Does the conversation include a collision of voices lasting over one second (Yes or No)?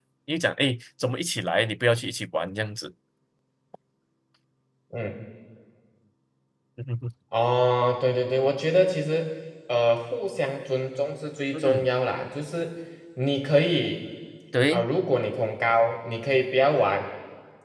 No